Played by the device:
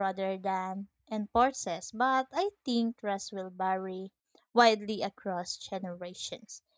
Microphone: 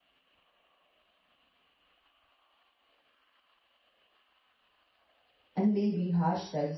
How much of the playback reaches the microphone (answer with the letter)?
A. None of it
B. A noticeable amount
A